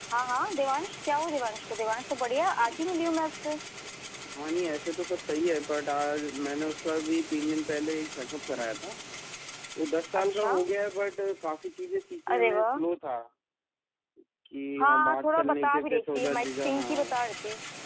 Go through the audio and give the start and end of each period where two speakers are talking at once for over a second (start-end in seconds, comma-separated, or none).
14.8-17.1